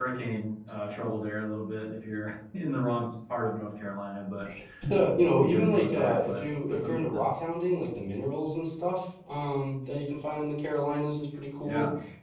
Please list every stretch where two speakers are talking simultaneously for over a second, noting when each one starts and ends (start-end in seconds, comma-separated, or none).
5.3-7.2